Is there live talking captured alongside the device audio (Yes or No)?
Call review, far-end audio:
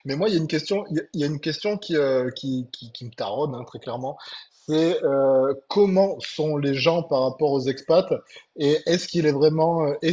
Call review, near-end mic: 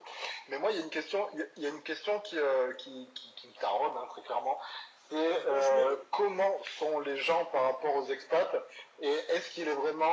Yes